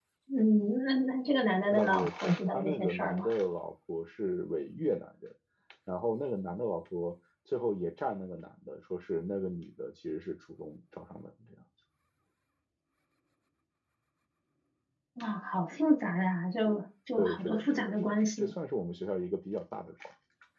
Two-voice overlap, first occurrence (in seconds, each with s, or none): 1.7 s